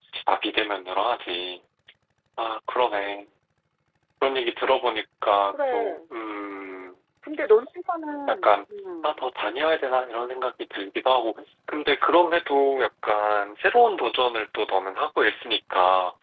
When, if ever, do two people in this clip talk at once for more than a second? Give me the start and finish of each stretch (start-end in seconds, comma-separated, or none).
none